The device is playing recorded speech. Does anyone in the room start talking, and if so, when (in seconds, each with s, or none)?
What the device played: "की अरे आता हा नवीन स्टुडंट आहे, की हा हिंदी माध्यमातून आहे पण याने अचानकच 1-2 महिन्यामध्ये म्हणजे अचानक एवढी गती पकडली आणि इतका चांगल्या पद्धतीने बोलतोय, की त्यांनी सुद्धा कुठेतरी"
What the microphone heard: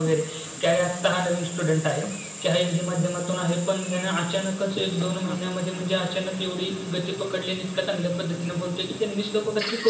4.6 s